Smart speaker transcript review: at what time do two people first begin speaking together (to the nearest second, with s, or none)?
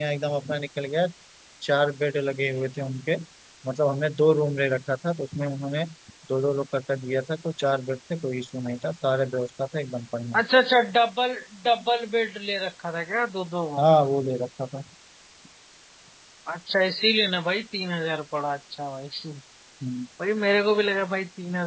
none